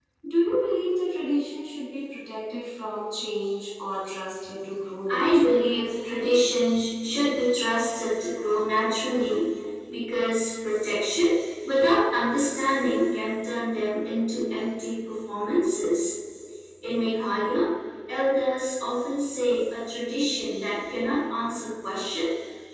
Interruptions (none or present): present